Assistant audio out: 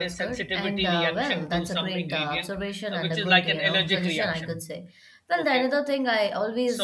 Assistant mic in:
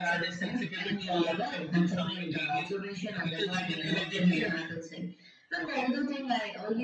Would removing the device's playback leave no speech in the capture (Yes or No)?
Yes